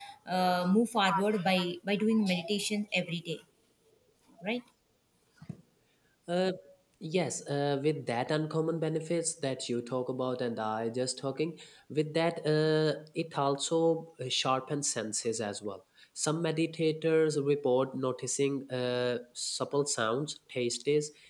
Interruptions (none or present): none